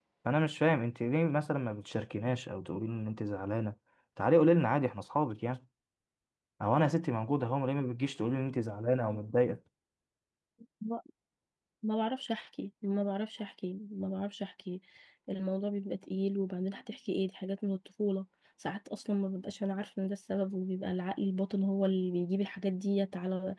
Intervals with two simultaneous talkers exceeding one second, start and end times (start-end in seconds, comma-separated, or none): none